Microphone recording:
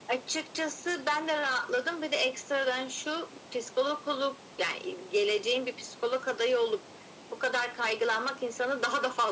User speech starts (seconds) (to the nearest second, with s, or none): none